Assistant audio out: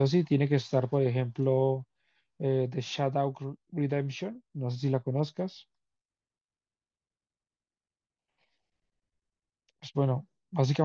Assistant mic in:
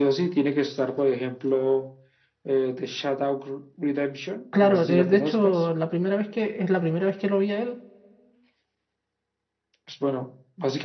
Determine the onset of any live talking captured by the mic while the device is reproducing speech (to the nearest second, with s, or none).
4 s